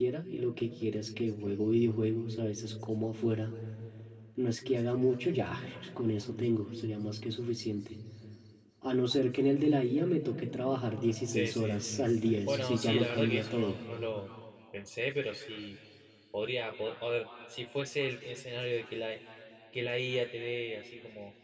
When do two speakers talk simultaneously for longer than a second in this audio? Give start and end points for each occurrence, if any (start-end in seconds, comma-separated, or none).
12.5-13.8